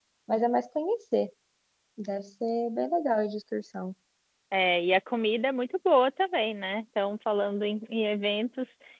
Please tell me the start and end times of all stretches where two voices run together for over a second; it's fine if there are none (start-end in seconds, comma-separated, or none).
none